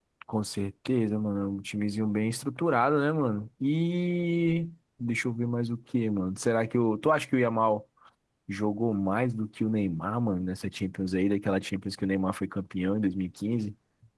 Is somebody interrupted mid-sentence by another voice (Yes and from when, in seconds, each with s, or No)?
No